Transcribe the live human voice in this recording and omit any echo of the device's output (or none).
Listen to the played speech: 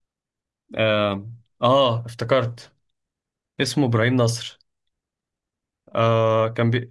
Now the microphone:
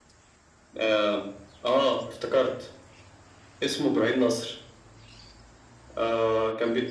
none